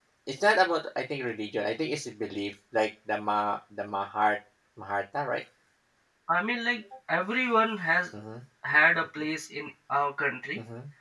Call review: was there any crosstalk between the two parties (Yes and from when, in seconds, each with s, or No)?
No